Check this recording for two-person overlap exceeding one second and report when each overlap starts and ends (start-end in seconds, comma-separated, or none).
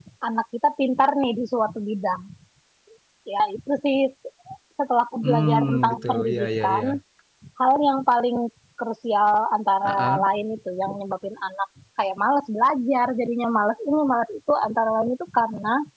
5.2-6.8